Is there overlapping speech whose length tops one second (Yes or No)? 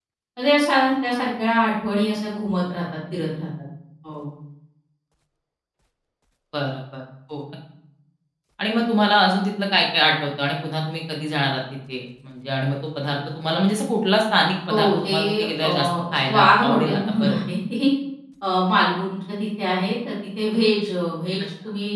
Yes